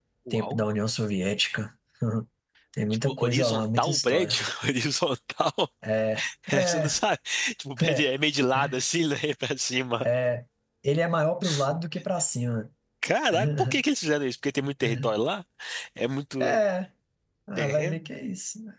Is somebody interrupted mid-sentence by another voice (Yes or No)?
Yes